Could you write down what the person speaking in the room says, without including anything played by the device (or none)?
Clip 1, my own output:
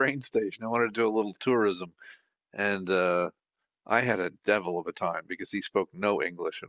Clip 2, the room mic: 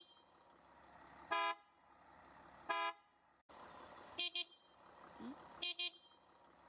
none